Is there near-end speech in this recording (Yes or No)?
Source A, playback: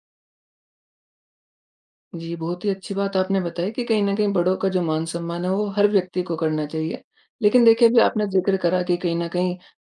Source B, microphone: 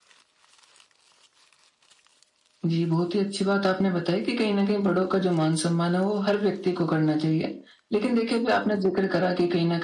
No